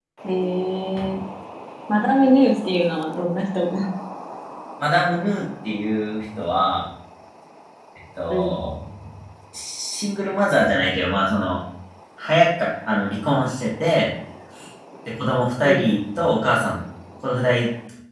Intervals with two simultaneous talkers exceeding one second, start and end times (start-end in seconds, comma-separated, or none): none